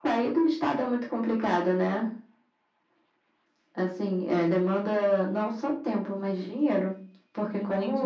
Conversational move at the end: taking over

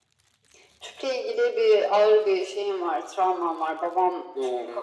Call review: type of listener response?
listening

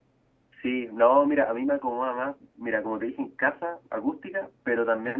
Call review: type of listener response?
listening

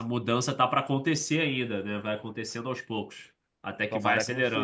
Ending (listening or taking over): taking over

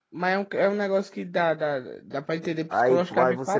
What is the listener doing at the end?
taking over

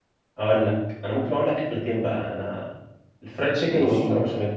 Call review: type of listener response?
listening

